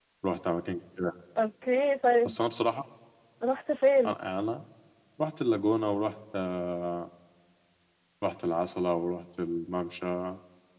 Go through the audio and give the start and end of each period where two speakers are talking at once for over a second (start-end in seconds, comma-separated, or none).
none